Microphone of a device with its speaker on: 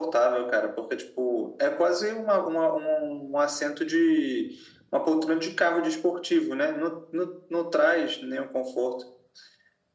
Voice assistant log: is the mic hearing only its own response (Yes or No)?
Yes